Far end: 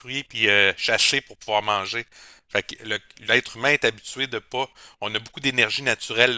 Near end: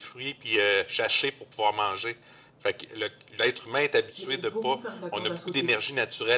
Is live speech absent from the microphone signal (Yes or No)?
No